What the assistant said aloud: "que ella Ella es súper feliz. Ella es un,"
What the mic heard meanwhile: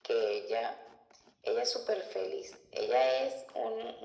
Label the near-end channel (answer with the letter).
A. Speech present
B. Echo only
B